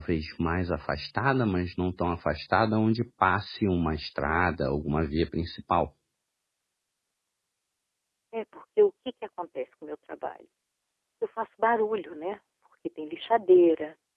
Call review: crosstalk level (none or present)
none